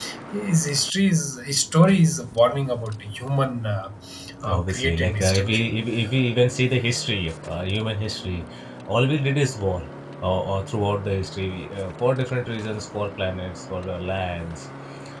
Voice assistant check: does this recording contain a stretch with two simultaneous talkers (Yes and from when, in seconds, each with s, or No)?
Yes, from 4.5 s